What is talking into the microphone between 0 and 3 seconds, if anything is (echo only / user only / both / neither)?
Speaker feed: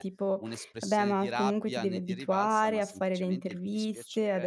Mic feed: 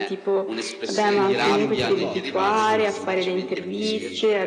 both